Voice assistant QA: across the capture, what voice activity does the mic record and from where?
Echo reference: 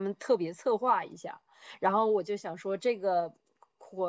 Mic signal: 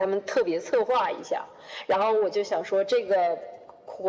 echo only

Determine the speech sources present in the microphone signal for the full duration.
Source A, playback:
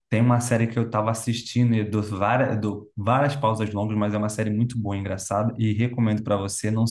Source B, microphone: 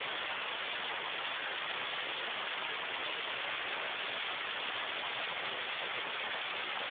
neither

